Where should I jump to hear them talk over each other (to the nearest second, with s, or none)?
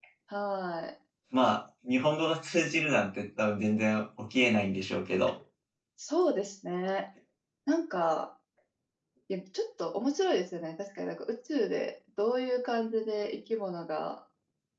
none